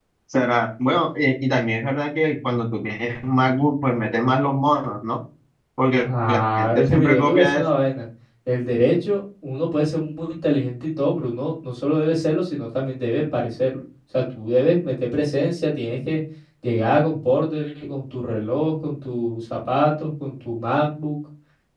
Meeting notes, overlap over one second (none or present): present